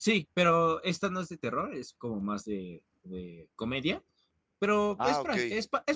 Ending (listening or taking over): listening